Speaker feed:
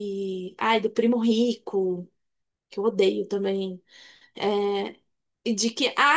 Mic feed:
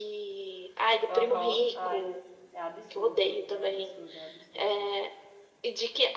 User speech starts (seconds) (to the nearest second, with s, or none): 1 s